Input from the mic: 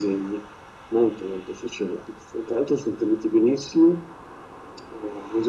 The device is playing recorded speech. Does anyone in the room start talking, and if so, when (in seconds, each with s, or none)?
none